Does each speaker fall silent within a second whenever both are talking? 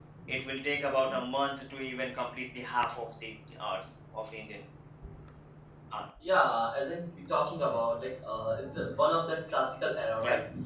Yes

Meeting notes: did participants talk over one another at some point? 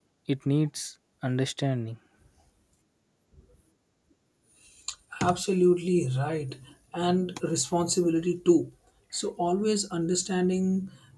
No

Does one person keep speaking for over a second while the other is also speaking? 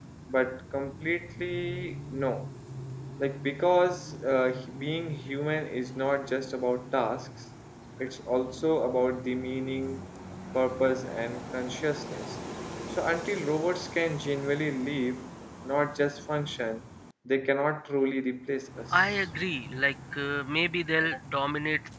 No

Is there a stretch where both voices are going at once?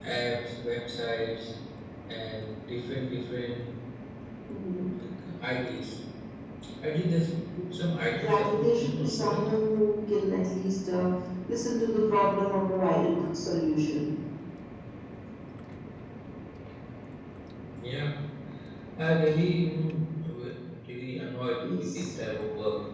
Yes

